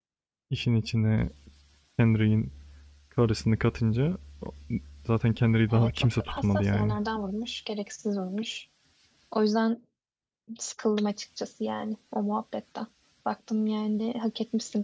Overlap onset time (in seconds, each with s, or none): 5.7 s